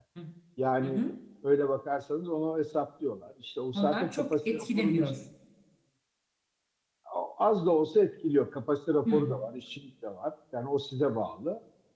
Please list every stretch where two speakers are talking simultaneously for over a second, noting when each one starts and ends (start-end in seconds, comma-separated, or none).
3.8-5.0